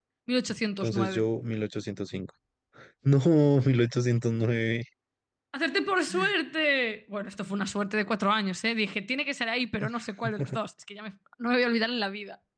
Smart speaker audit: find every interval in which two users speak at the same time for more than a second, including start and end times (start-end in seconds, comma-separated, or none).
none